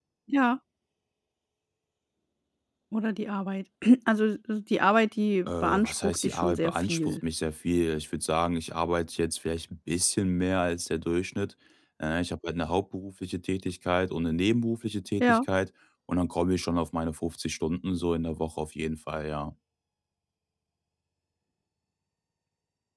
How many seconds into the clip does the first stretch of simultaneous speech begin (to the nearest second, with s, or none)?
5 s